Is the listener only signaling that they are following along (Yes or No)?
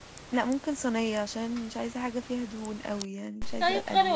No